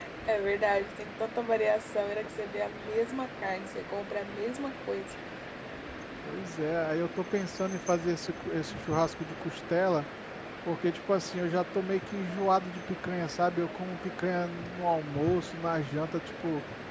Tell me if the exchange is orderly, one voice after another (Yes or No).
Yes